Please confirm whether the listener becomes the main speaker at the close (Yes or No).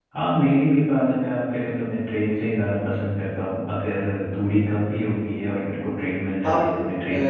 Yes